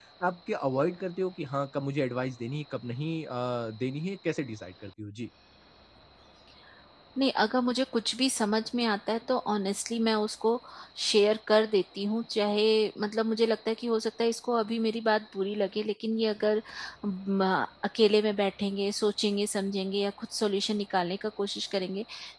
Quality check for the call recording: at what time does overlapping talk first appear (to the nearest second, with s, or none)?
none